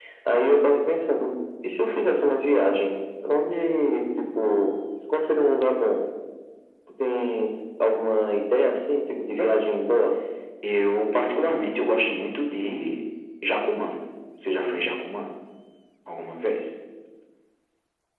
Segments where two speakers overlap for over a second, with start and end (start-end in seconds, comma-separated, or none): none